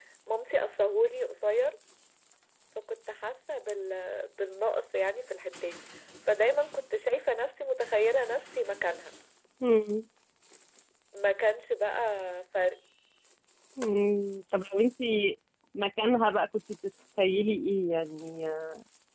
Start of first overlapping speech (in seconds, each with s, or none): none